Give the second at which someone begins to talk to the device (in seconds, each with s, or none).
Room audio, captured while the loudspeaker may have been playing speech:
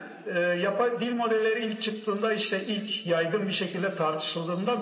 none